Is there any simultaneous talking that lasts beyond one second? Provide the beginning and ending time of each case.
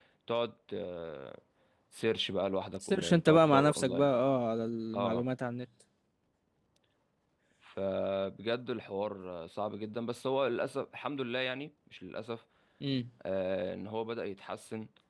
2.9-4.1

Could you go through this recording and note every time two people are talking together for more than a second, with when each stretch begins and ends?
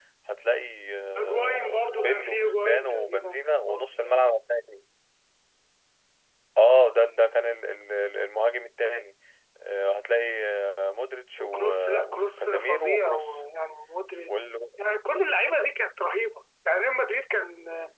1.2-4.3, 11.4-13.4

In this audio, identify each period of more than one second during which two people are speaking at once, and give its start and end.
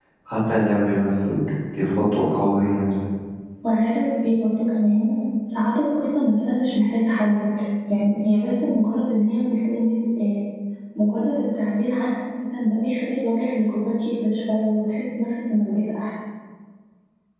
none

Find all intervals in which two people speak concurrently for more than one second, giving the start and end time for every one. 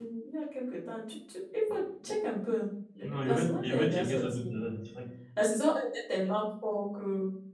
3.0-4.6

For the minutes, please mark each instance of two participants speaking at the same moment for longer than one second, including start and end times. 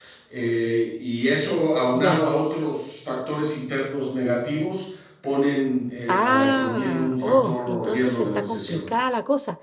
6.1-8.9

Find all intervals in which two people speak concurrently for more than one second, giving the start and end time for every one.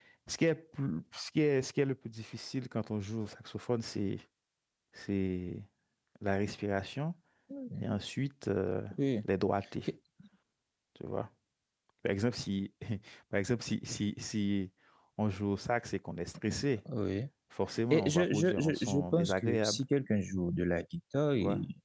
17.9-19.8

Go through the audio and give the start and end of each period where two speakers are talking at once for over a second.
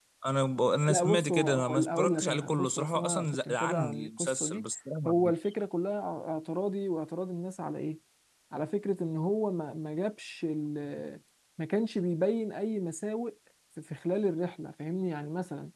0.9-4.6

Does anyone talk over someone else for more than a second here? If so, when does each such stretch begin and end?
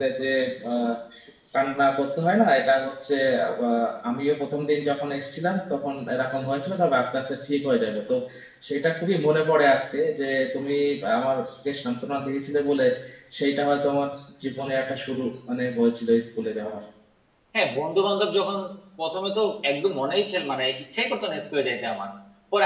none

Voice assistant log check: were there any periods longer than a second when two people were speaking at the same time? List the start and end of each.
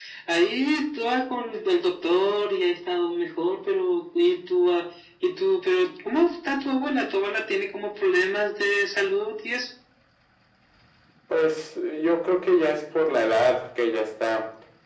none

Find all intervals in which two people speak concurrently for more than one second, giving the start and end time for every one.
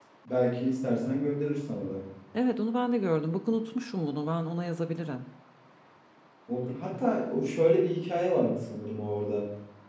none

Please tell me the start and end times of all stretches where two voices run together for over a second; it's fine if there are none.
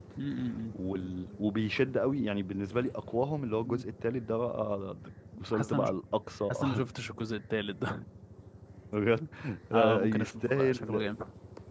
9.7-11.0

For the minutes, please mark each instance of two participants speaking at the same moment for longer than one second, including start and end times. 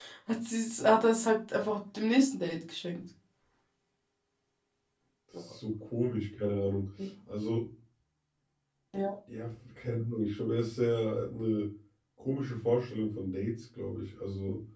none

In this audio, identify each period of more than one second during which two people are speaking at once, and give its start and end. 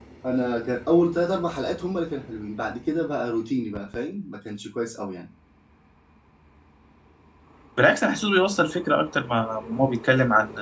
none

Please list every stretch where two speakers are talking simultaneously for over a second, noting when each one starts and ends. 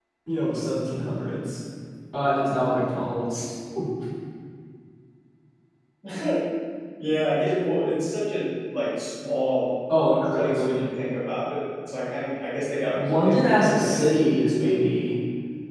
12.9-14.2

